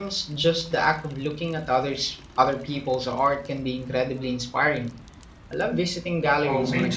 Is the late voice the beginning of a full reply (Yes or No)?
Yes